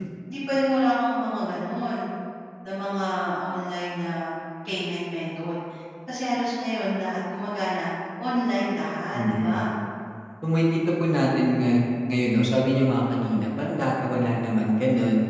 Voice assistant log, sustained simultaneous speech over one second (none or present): none